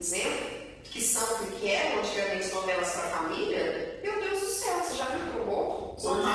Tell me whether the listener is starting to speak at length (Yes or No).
Yes